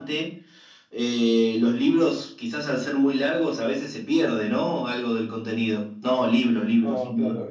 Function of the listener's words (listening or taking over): taking over